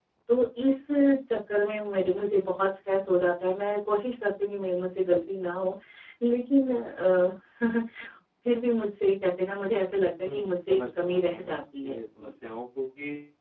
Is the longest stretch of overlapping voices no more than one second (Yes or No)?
No